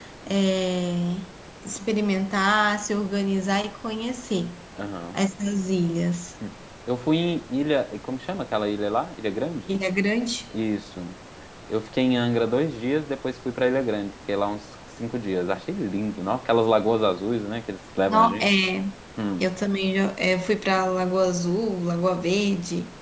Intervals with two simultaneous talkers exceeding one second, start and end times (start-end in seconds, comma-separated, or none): none